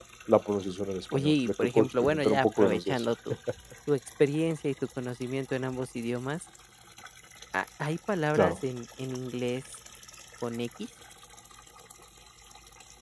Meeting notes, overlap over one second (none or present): present